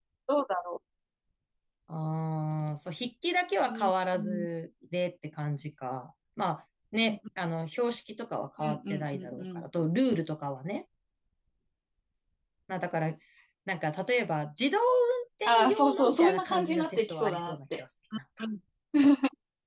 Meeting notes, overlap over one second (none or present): present